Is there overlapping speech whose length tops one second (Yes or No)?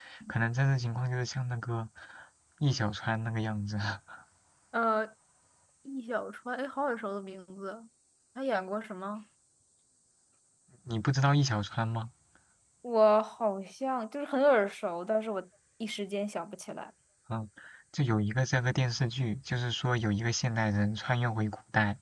No